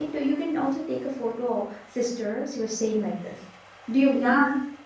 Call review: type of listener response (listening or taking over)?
taking over